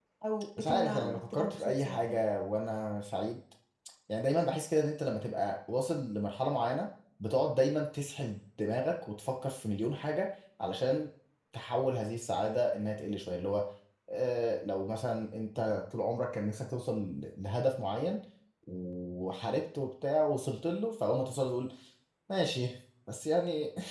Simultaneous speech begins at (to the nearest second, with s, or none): 1 s